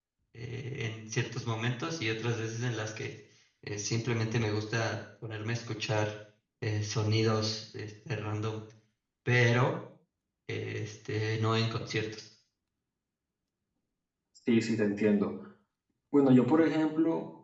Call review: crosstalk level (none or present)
none